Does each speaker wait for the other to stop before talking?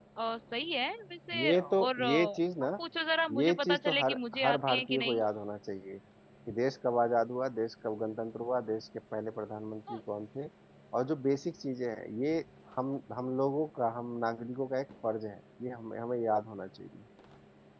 No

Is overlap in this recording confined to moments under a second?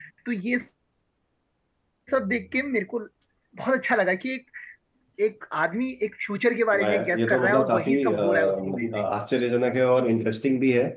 No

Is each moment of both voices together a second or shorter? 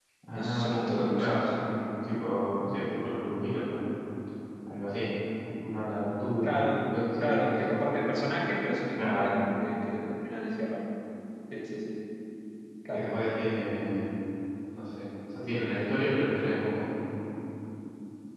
No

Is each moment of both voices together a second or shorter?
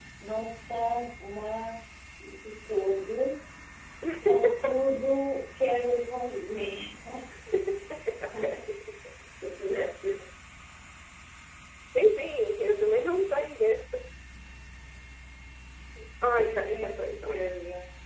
No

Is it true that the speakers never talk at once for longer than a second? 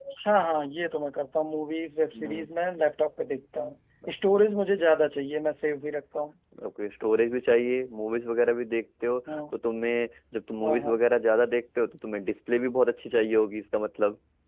Yes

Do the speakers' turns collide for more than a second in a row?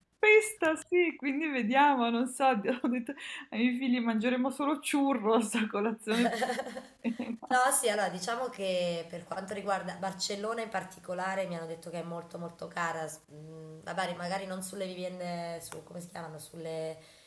No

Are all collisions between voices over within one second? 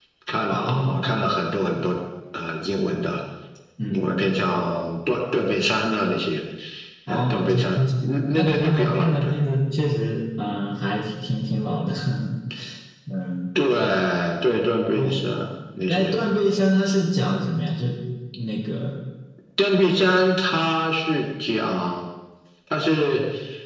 No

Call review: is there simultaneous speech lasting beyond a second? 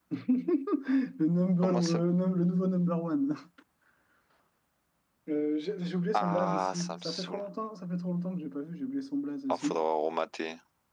Yes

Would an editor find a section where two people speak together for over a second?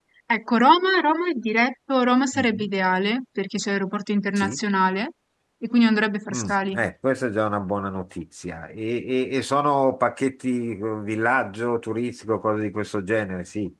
No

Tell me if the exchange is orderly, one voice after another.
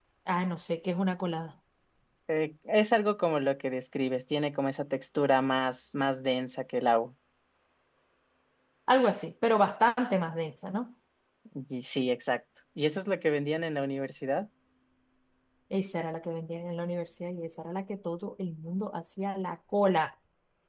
Yes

